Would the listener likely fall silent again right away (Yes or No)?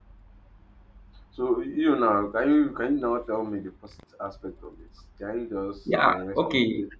No